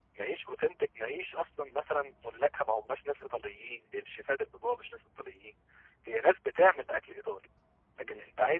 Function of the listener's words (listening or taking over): listening